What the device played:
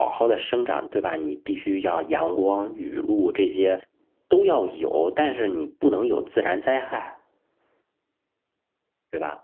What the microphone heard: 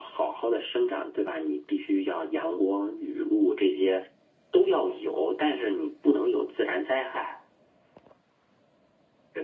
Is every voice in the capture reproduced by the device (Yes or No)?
Yes